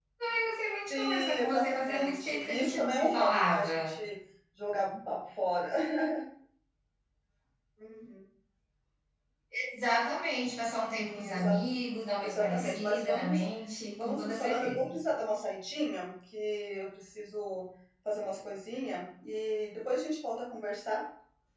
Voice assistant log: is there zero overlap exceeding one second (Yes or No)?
No